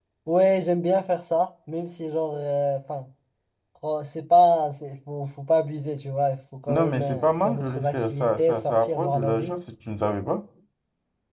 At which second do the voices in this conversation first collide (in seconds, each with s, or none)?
6.7 s